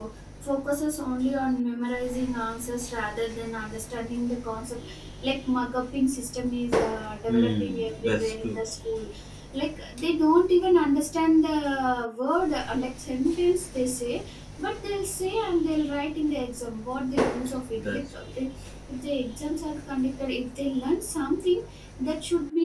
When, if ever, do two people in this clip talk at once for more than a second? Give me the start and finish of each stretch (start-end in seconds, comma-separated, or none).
7.3-8.6